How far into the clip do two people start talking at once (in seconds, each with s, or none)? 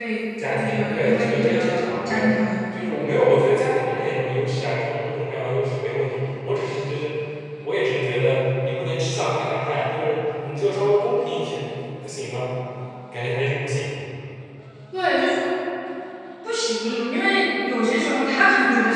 0.6 s